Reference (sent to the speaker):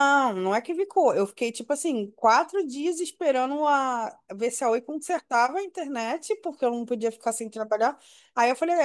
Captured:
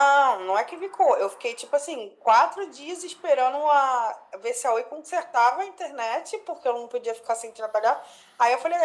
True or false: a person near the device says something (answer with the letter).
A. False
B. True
A